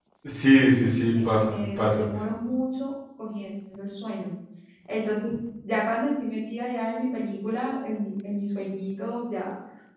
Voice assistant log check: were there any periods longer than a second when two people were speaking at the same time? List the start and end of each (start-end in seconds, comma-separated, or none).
0.6-2.1